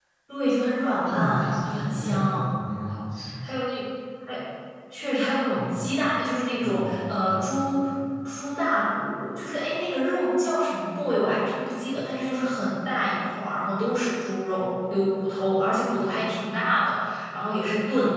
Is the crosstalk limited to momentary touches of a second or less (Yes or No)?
No